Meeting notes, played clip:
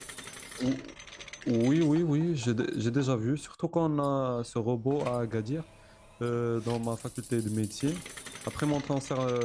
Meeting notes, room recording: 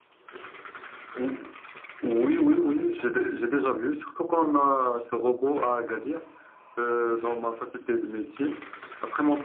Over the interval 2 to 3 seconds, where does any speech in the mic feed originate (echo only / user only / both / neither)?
echo only